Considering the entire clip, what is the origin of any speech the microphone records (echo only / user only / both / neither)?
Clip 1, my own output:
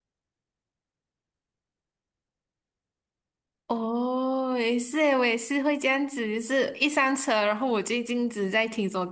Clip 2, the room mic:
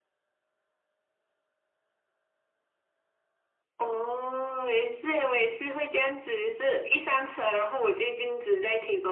echo only